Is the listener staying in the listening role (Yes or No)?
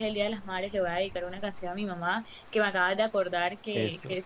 Yes